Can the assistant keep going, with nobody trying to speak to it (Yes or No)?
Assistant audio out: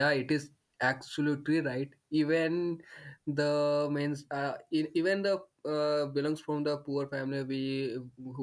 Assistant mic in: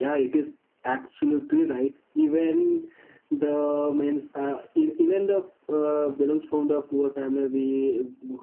Yes